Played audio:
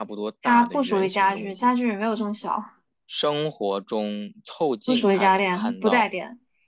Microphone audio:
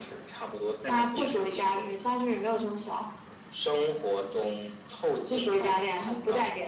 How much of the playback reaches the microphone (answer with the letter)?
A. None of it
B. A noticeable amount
B